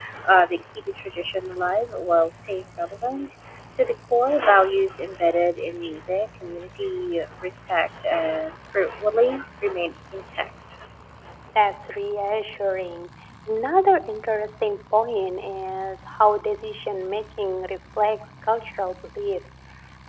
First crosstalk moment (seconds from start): none

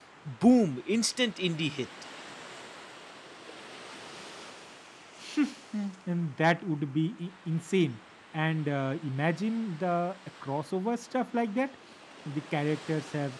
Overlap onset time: none

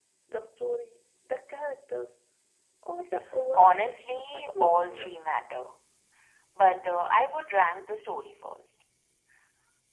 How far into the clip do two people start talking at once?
3.5 s

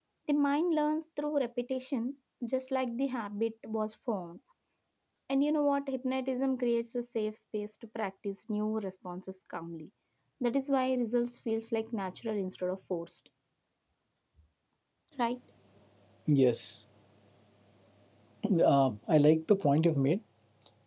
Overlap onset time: none

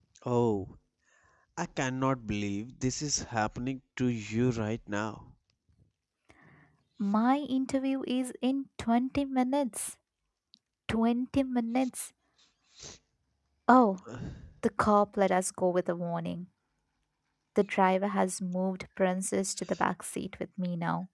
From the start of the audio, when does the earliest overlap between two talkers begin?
none

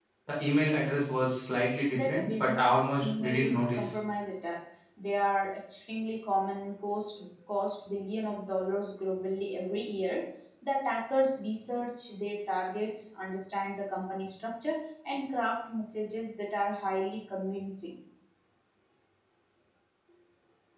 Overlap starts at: 1.9 s

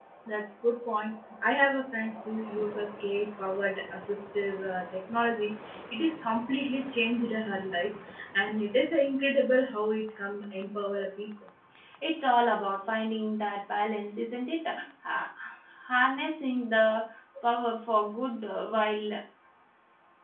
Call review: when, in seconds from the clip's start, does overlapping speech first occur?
none

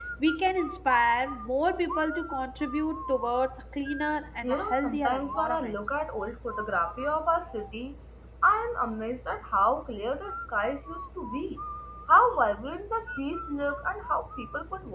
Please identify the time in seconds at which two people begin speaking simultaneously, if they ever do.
4.4 s

